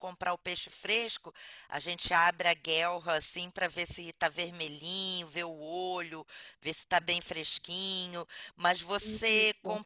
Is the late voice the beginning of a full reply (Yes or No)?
No